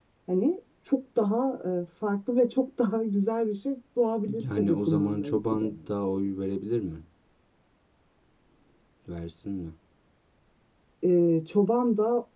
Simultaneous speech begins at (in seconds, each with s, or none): 4.3 s